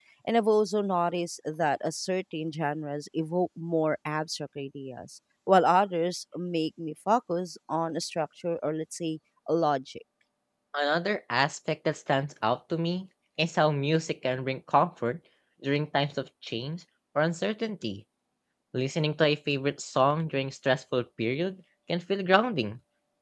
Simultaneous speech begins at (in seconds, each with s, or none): none